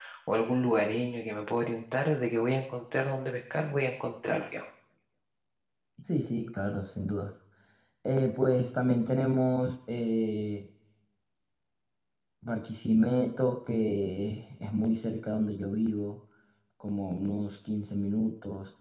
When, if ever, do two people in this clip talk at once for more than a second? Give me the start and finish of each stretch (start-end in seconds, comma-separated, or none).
none